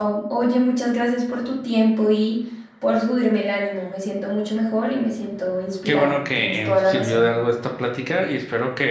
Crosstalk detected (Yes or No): Yes